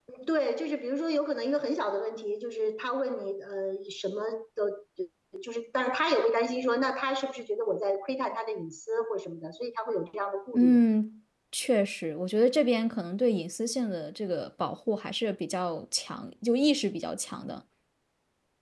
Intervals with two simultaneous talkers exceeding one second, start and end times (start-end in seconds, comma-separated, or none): none